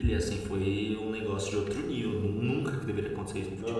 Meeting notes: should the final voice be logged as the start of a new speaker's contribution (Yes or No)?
Yes